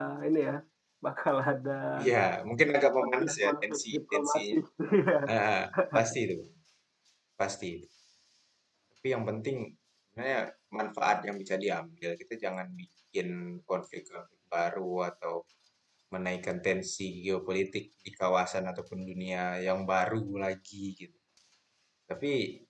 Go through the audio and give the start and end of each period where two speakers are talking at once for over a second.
3.0-4.6

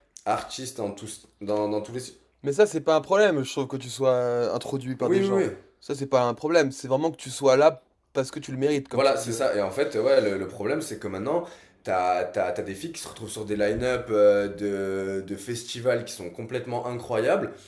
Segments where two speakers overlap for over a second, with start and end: none

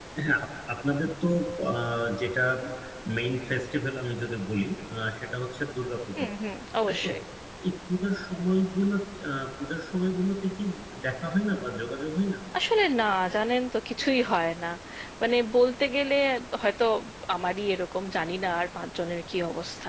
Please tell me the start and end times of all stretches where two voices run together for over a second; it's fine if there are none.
none

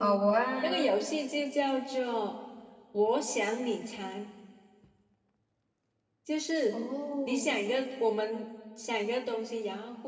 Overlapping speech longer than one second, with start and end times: none

